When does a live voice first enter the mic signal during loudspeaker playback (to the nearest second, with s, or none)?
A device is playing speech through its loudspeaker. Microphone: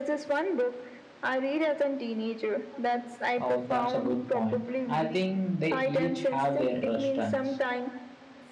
3 s